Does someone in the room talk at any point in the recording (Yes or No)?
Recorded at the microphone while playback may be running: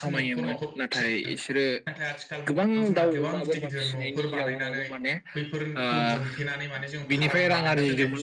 Yes